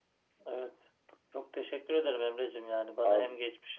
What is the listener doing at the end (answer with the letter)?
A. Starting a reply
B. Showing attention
B